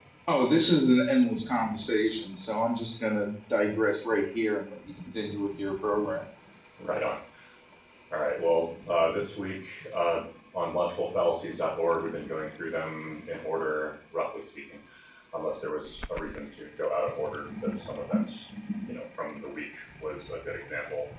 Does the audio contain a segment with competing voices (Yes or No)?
No